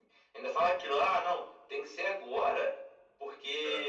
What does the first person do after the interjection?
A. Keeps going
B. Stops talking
A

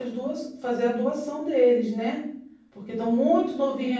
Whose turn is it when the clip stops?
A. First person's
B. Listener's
A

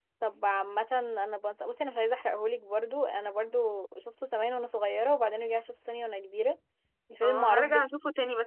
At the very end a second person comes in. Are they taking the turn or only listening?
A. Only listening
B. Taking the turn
B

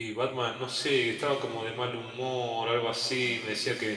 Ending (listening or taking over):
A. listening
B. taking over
A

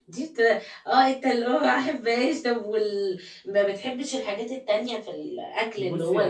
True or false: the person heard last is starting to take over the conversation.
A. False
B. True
B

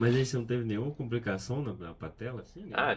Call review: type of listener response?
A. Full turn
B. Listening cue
A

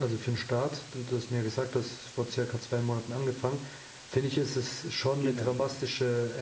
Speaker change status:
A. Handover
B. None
B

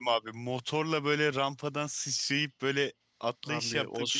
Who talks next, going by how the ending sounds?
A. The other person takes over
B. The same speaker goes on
A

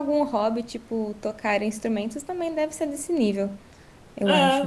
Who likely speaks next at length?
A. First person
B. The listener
B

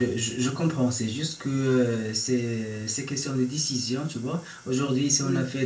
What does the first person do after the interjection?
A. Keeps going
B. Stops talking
A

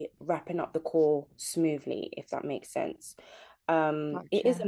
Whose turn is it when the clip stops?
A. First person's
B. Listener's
A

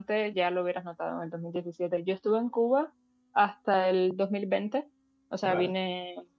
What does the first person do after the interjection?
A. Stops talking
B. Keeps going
B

